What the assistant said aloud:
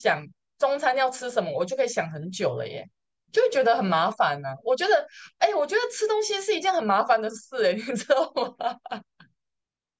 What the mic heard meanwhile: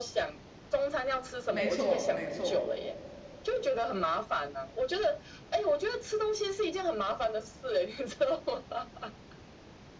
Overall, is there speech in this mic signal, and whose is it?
both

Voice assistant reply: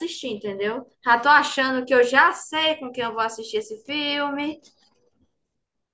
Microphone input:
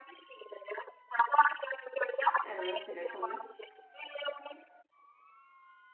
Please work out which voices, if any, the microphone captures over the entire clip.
both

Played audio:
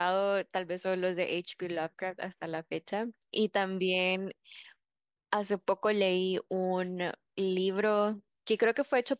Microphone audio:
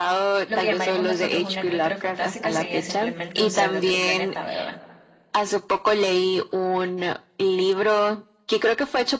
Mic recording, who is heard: both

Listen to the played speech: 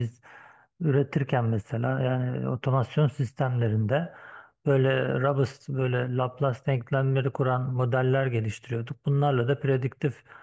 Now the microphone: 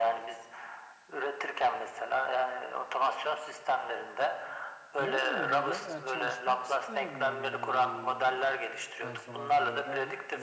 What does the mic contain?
both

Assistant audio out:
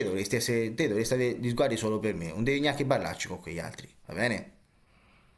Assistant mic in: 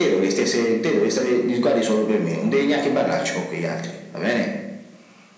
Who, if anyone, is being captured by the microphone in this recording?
echo only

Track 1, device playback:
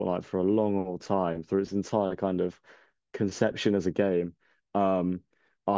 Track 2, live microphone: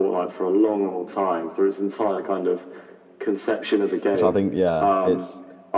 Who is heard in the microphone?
both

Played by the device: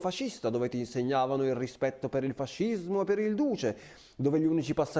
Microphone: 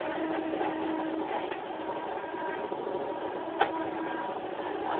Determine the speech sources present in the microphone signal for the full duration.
neither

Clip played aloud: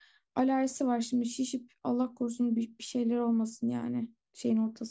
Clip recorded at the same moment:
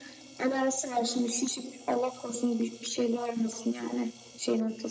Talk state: echo only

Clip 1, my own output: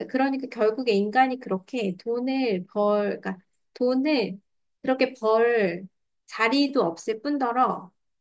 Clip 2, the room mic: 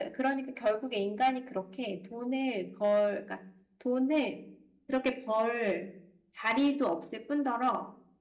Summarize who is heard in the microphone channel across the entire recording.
echo only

